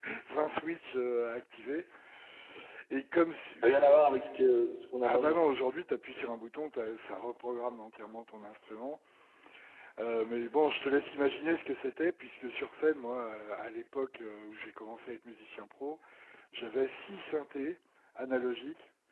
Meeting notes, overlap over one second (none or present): none